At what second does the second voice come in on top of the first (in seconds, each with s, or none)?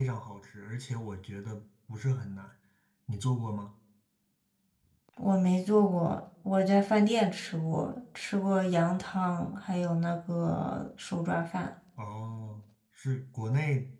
none